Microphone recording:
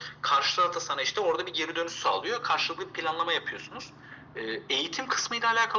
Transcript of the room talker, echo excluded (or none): none